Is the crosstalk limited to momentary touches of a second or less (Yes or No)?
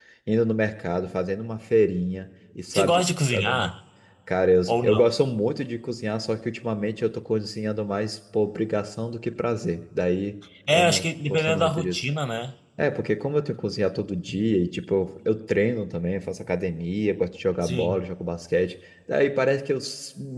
No